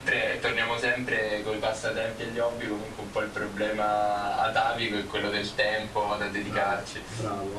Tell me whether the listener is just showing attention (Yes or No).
No